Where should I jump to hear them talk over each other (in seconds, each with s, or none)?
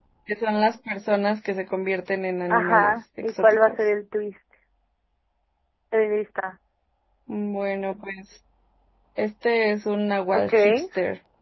2.5 s